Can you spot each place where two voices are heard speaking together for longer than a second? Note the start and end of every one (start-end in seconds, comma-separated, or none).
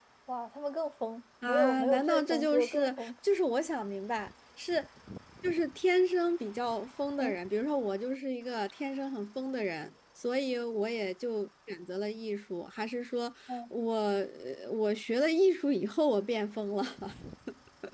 1.4-3.1